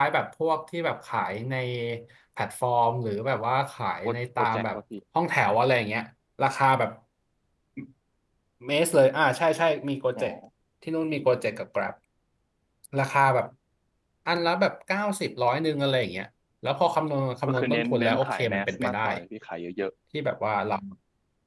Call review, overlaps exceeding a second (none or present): present